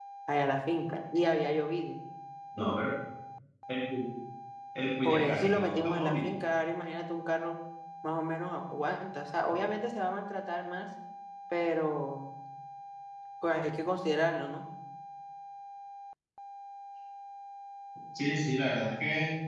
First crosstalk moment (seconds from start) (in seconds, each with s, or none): 5.0 s